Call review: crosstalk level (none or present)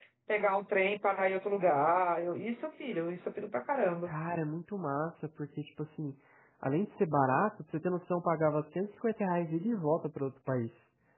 none